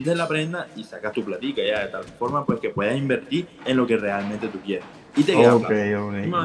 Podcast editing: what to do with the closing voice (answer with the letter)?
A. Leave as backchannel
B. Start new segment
B